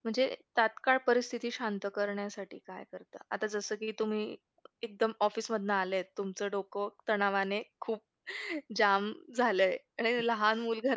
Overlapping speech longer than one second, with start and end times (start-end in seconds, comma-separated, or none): none